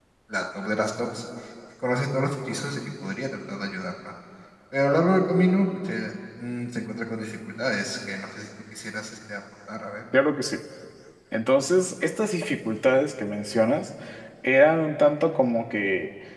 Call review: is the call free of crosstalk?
Yes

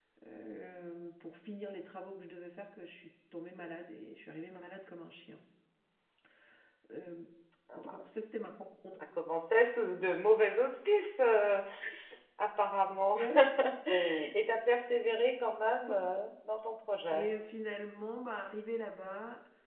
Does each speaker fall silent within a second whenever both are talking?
Yes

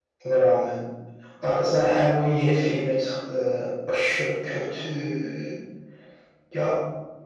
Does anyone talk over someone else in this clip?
No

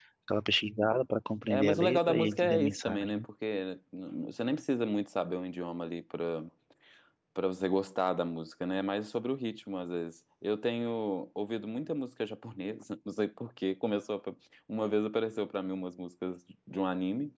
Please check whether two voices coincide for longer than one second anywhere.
Yes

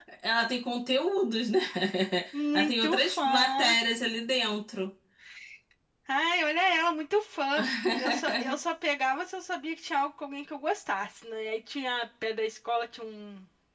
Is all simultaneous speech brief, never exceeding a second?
No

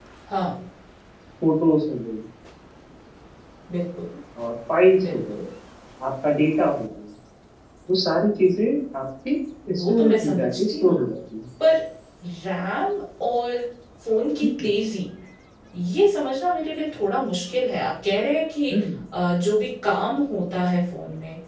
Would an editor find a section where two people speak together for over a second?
Yes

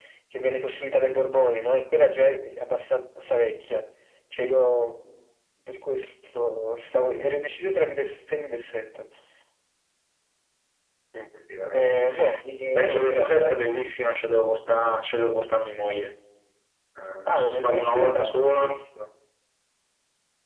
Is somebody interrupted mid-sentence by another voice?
Yes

